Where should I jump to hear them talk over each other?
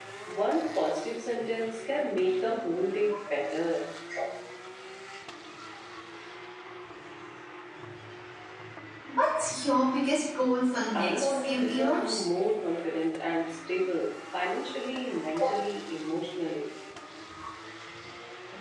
10.9 s

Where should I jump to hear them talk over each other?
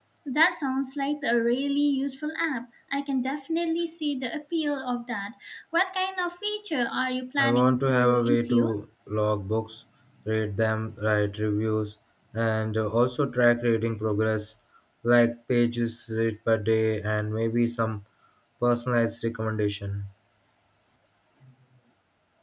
7.4 s

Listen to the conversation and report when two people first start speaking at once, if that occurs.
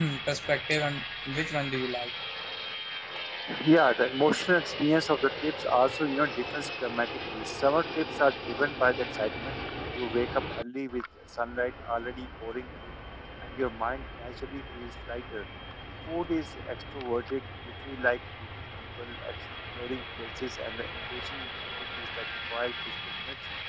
none

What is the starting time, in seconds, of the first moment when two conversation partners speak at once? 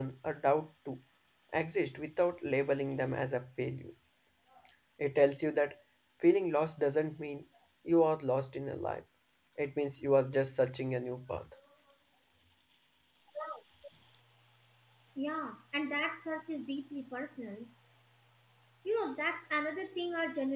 none

